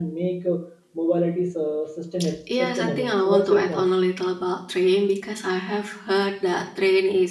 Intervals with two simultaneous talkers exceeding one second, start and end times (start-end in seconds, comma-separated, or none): 2.6-3.9